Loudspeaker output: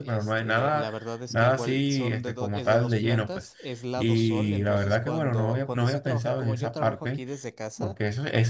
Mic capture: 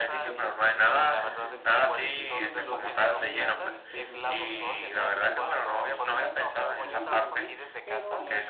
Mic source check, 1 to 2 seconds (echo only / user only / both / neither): both